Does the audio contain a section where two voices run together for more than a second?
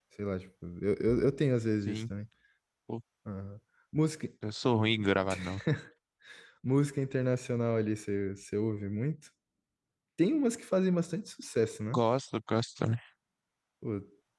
No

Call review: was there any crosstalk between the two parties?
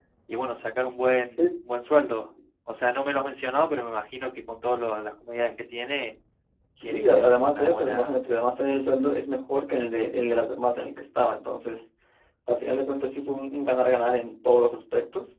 Yes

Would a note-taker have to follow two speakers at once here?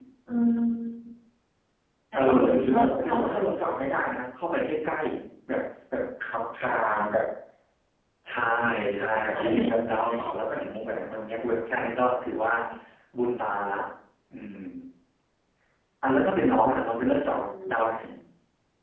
Yes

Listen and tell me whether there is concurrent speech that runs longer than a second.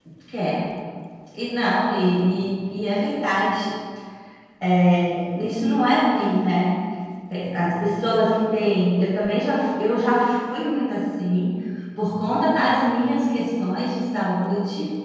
No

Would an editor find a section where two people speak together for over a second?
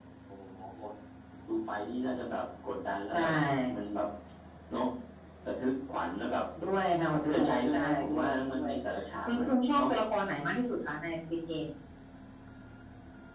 Yes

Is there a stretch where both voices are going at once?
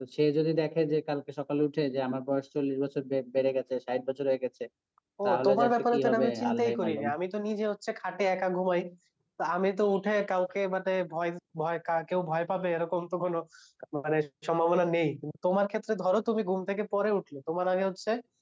Yes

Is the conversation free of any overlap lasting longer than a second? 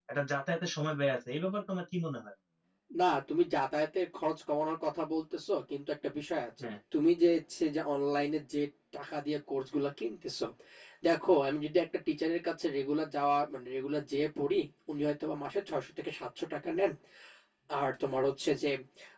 Yes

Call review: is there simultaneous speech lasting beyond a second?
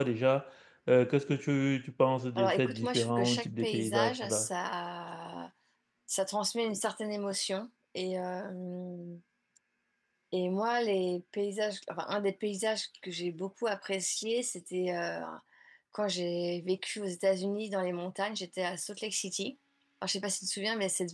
Yes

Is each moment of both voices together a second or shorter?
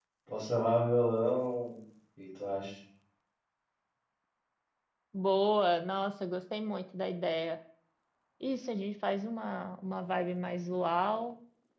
Yes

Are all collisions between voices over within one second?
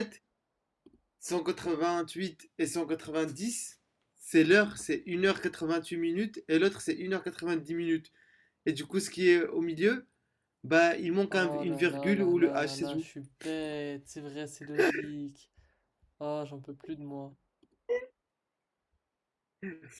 No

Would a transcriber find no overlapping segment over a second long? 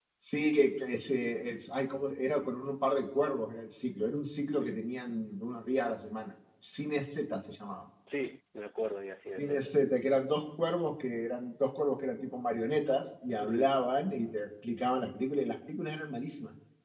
Yes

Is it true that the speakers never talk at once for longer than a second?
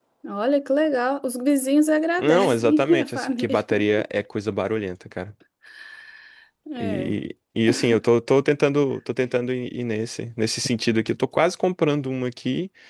No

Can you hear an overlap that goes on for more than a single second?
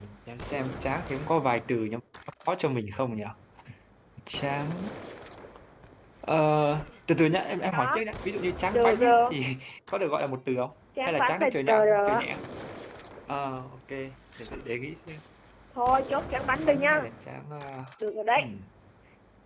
Yes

